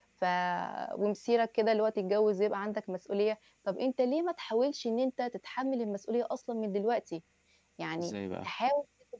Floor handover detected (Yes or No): No